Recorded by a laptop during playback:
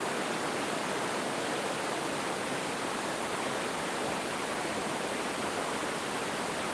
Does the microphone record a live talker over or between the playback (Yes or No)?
No